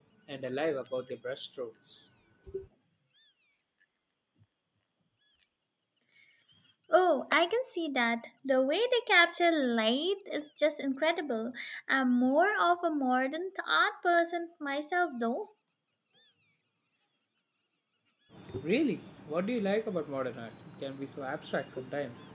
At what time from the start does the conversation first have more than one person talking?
none

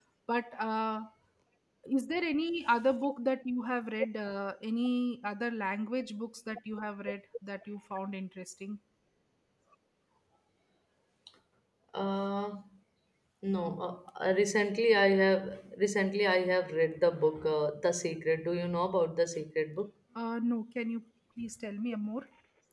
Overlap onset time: none

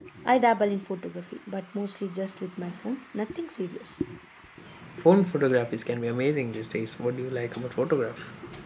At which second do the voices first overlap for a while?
none

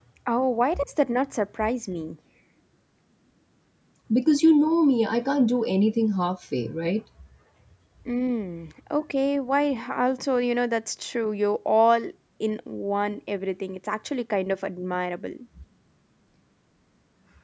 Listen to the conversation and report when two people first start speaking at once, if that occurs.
none

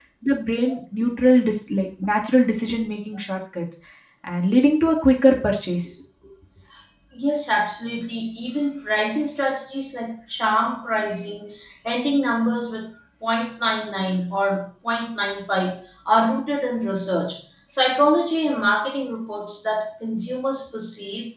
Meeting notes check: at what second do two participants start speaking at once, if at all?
none

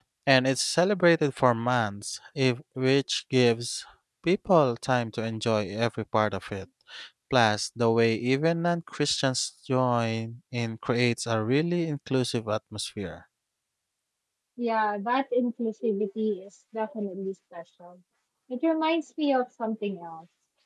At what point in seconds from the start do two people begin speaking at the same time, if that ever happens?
none

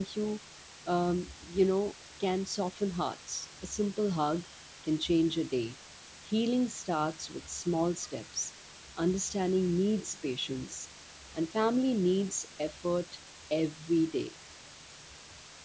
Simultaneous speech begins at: none

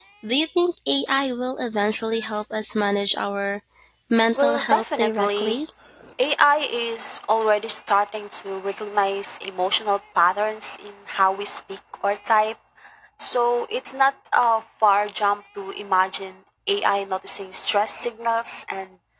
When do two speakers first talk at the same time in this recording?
4.4 s

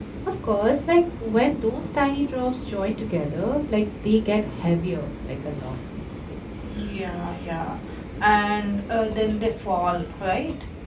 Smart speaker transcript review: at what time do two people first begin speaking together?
none

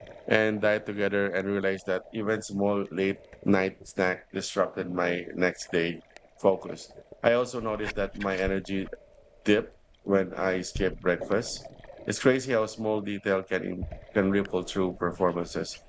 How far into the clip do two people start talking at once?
none

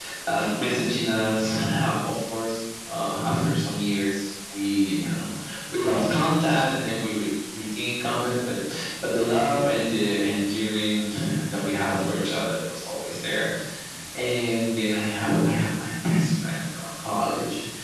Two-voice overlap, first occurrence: none

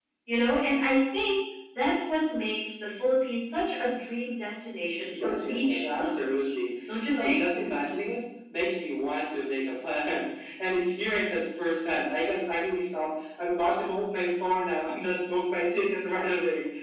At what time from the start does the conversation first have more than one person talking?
5.1 s

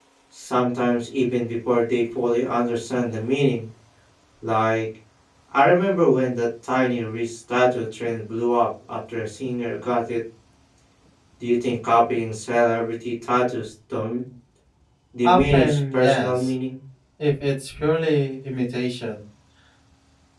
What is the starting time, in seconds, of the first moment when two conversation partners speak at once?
15.2 s

